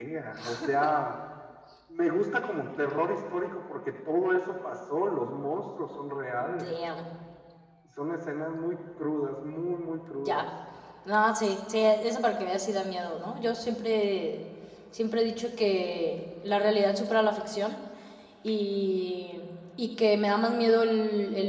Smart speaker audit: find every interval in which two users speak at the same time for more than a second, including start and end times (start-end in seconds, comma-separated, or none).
none